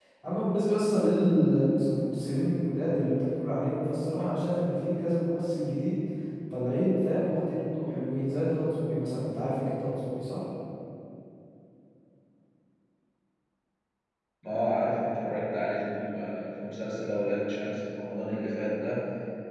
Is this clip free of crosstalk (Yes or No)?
Yes